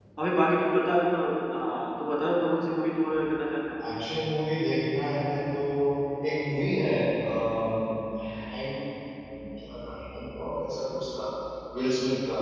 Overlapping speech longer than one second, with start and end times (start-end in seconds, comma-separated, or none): none